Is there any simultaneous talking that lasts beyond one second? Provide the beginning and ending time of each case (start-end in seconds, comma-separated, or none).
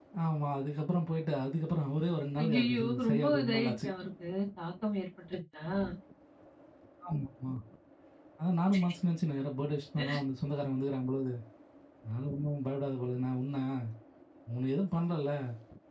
2.4-3.9